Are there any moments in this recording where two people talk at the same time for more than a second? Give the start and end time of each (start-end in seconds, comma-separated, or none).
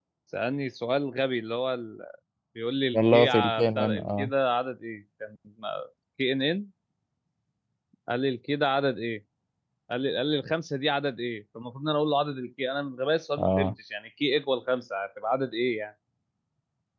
3.0-4.3